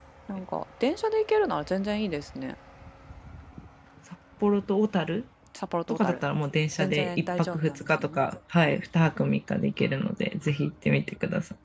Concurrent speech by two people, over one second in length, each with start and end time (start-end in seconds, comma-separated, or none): 6.8-8.1